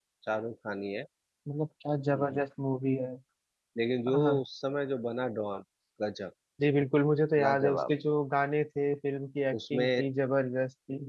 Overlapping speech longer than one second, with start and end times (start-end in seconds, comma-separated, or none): none